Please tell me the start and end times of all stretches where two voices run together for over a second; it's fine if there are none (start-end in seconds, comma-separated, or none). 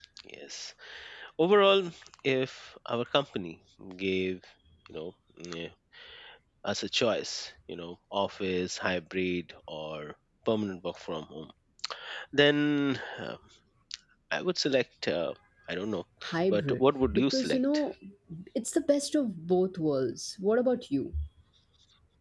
16.5-17.8